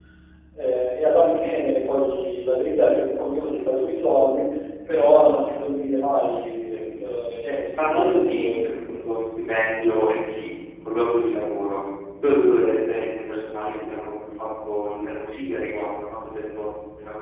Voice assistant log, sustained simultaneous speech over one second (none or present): present